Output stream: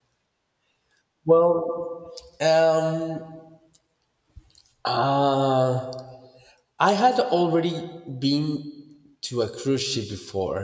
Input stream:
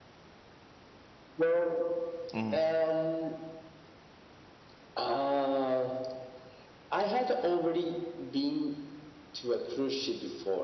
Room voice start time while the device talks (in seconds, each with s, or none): 2.3 s